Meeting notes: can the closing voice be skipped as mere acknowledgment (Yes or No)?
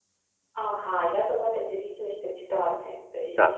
Yes